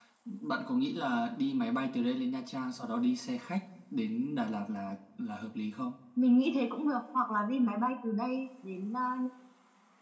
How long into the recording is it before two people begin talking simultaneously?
none

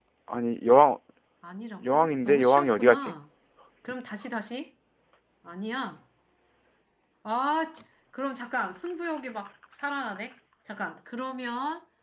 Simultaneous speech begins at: 1.9 s

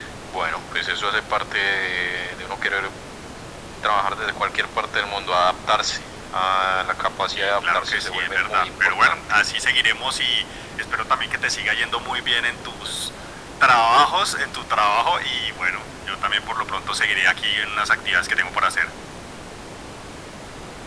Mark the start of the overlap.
7.4 s

